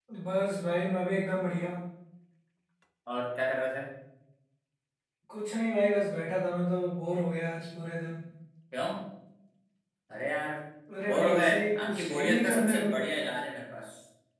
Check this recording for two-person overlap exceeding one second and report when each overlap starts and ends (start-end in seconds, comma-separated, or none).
11.1-12.9